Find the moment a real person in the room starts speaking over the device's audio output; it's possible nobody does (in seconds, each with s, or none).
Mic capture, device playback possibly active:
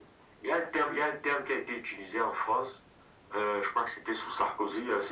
none